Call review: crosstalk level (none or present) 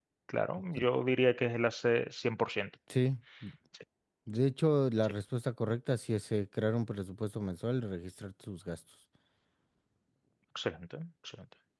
none